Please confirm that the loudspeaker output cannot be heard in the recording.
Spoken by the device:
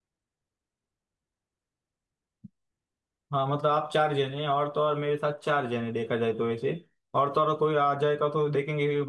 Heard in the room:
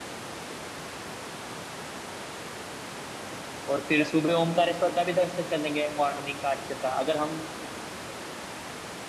Yes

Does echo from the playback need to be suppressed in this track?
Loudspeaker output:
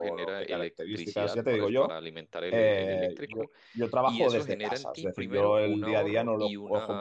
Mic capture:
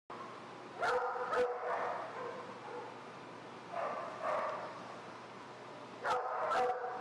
No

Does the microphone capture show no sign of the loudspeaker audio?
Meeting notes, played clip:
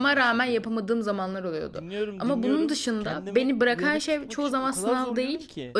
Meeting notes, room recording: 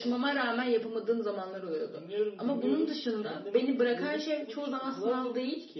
No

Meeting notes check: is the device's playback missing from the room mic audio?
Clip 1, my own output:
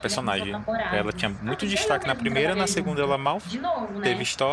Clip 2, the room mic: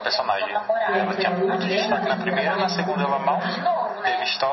No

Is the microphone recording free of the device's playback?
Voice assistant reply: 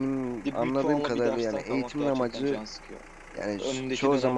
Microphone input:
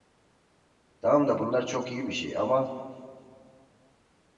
Yes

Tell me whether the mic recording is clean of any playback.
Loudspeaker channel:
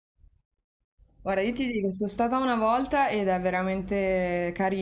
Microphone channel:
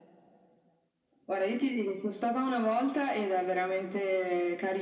No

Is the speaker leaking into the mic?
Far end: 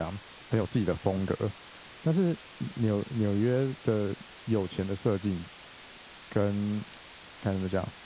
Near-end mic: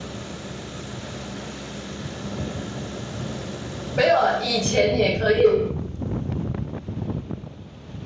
No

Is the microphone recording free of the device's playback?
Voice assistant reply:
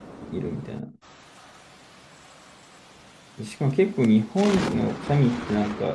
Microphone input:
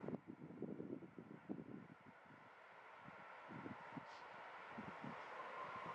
Yes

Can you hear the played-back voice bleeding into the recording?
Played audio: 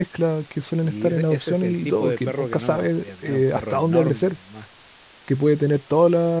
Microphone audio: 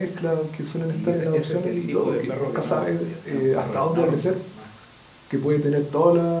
Yes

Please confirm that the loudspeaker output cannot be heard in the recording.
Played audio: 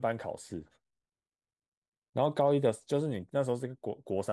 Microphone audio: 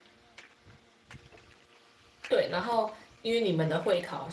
Yes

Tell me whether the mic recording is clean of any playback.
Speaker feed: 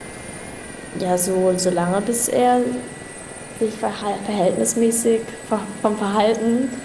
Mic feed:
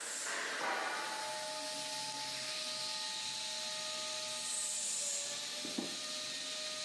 Yes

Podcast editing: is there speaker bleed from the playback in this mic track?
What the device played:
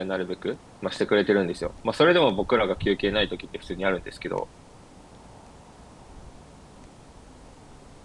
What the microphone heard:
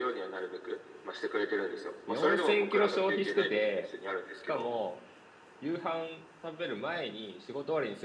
Yes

